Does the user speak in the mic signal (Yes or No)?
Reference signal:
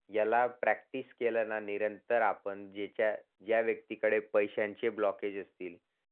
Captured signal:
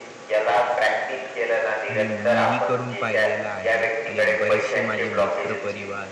Yes